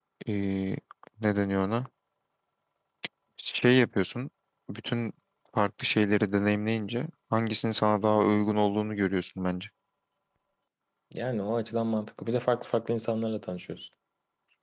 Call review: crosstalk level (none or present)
none